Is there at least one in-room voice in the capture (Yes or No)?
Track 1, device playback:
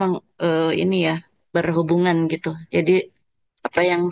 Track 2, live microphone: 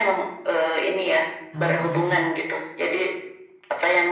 Yes